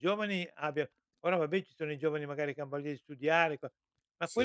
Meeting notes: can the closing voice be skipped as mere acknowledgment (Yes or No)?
Yes